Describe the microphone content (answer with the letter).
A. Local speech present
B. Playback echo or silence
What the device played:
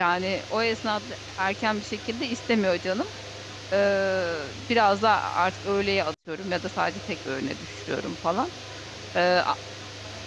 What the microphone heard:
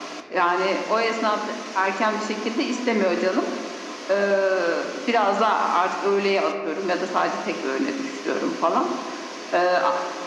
B